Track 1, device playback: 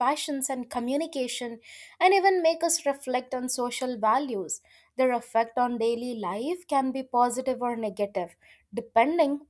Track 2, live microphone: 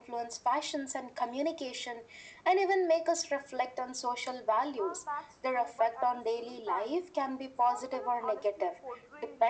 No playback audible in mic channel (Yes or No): No